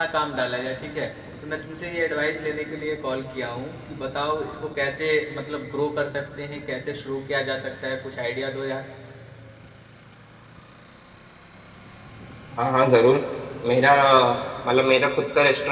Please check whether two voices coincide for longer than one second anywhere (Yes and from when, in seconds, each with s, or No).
No